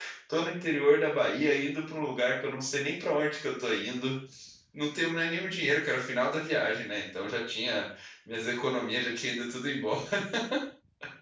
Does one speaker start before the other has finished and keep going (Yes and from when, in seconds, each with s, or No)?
No